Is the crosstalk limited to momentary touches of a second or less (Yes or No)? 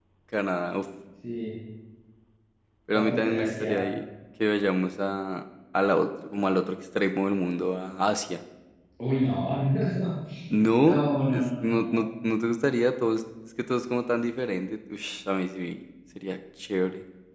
No